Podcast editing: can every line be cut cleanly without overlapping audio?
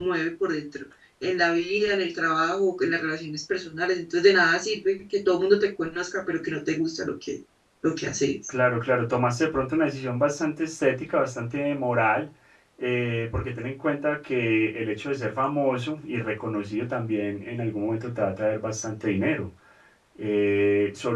Yes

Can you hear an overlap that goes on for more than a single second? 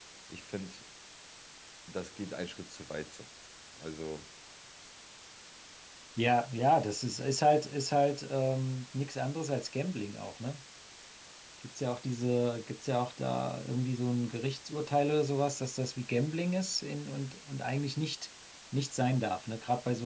No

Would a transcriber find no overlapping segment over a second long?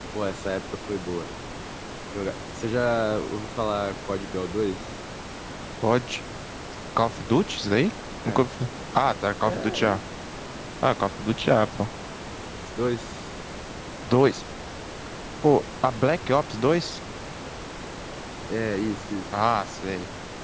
Yes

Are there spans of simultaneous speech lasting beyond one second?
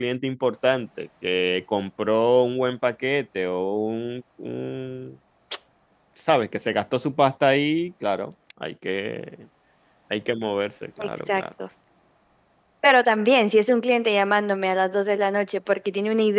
No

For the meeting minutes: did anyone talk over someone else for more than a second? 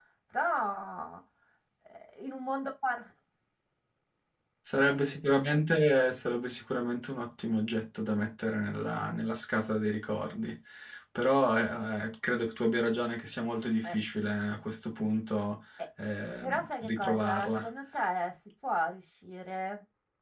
Yes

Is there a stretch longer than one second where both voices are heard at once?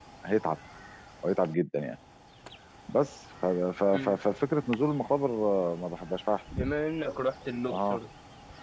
No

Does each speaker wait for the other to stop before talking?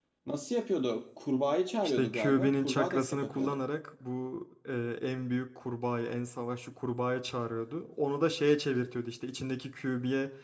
No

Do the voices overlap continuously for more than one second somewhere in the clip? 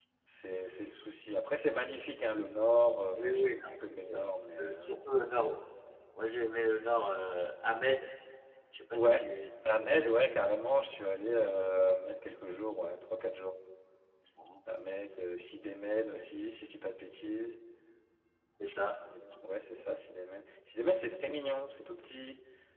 Yes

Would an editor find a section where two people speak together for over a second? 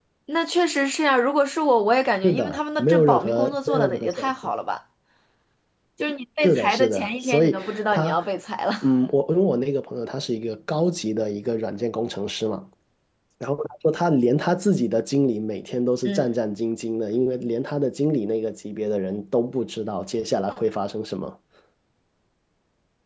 Yes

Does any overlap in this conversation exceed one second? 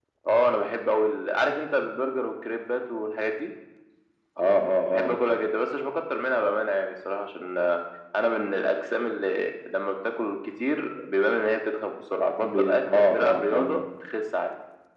Yes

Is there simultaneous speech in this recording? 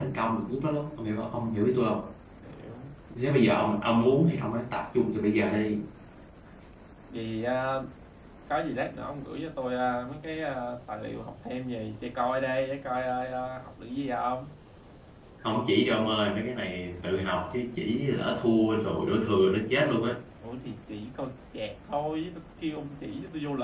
No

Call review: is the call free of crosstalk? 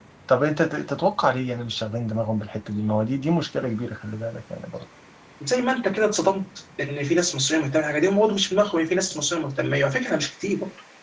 Yes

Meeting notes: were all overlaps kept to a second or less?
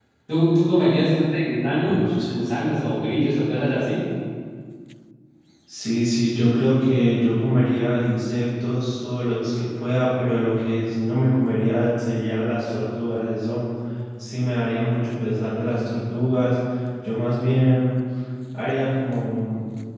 Yes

